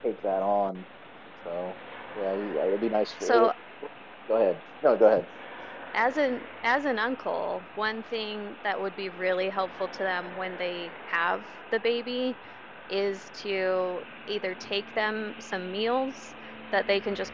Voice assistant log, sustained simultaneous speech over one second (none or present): none